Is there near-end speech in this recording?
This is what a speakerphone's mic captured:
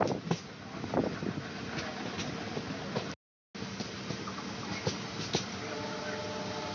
No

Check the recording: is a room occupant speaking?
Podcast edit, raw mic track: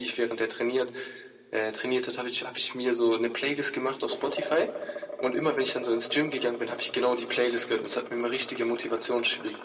No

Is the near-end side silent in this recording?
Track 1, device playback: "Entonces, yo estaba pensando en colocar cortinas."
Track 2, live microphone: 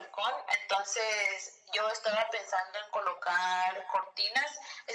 Yes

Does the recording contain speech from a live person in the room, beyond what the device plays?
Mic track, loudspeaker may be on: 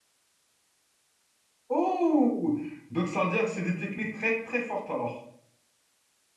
Yes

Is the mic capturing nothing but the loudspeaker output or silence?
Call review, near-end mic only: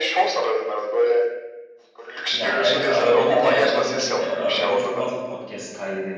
No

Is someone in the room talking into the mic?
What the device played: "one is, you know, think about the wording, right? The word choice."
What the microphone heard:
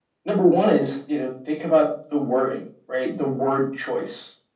No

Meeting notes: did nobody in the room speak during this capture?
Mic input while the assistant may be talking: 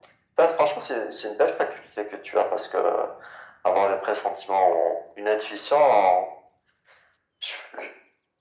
Yes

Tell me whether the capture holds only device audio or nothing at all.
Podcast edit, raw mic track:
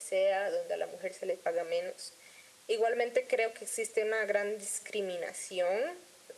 Yes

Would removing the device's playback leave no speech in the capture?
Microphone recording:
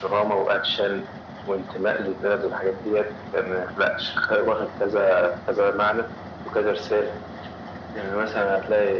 Yes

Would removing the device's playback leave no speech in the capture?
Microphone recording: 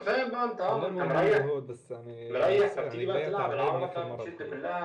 No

